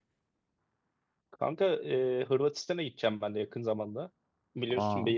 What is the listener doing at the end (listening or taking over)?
listening